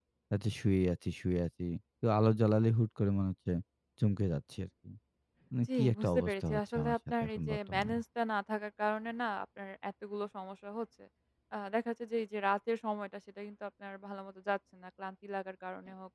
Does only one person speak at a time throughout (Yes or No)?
No